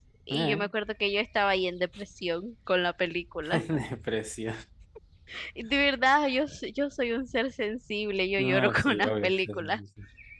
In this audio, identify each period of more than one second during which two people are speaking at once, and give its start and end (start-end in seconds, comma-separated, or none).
8.4-9.8